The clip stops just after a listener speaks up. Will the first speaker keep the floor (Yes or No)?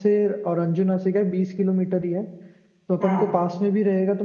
Yes